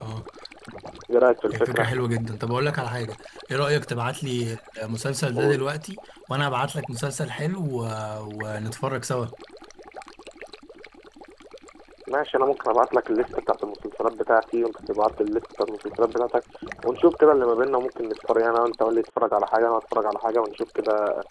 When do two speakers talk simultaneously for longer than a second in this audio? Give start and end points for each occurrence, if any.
none

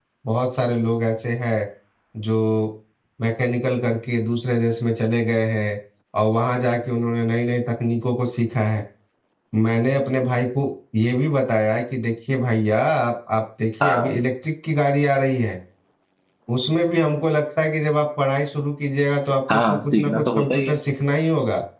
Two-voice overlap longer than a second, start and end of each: 19.5-20.8

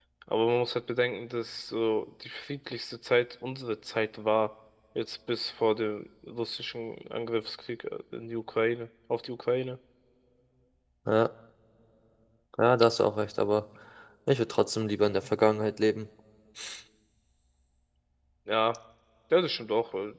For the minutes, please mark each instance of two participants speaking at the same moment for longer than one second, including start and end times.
none

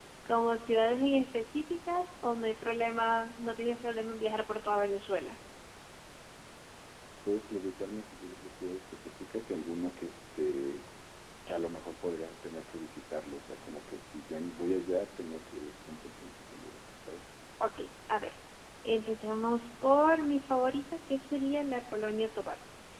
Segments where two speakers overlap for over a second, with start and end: none

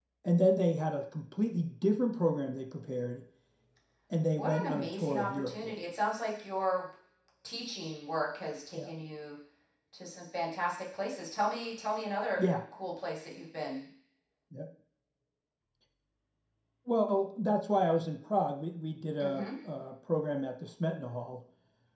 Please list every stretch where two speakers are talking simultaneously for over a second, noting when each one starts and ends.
4.4-5.7

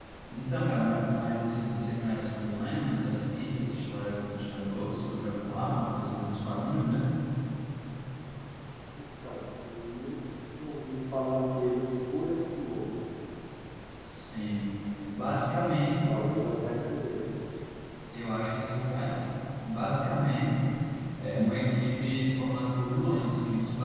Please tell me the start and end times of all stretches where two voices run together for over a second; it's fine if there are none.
none

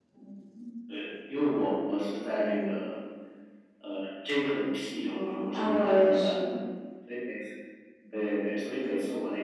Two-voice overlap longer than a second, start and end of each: 5.1-6.3

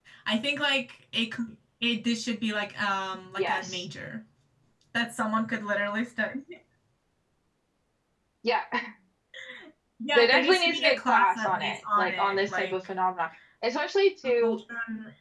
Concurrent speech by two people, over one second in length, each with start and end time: 10.2-12.7

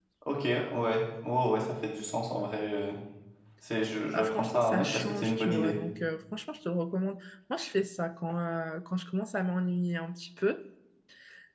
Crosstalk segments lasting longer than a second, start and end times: 4.1-5.8

